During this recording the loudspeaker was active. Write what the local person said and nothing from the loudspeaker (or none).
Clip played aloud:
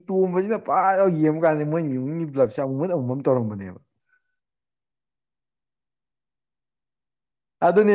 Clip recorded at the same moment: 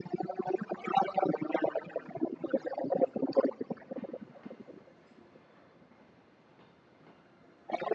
none